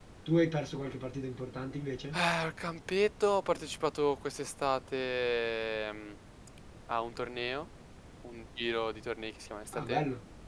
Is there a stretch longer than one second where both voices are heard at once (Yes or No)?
No